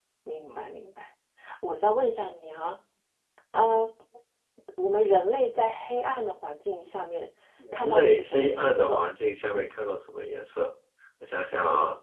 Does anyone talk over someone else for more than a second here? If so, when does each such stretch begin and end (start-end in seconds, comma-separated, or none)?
7.7-9.0